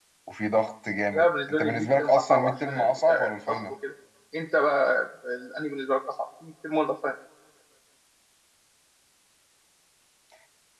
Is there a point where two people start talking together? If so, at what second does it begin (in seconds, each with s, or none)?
1.1 s